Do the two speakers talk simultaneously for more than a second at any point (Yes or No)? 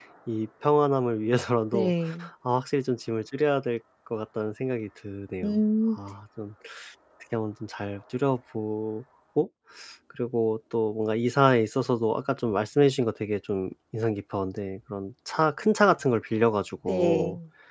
No